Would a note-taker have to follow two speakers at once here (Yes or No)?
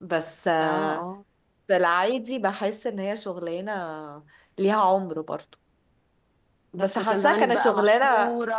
Yes